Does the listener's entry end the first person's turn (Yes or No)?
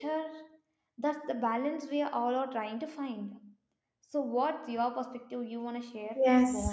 Yes